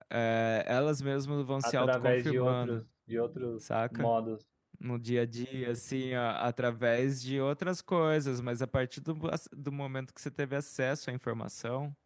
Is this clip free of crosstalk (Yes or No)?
No